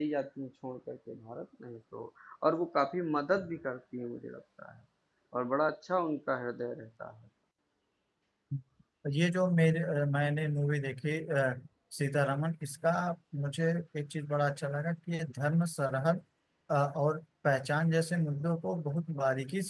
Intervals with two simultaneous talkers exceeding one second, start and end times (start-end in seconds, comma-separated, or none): none